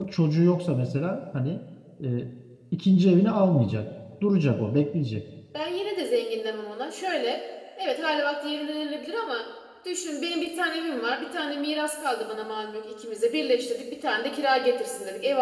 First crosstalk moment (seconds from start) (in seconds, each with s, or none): none